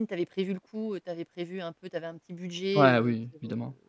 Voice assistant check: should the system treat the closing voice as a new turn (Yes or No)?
Yes